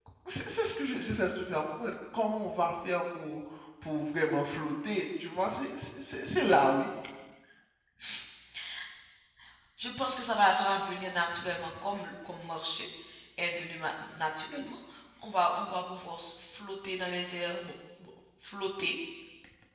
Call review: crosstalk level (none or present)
none